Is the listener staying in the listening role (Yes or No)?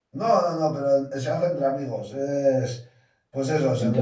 Yes